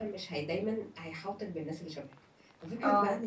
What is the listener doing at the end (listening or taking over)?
listening